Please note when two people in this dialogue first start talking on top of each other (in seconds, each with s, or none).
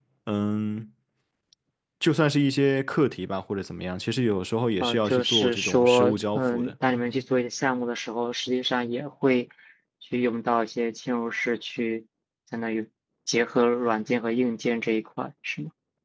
4.8 s